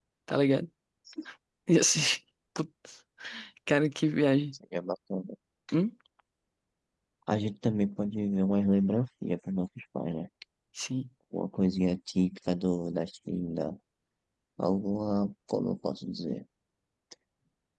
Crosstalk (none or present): none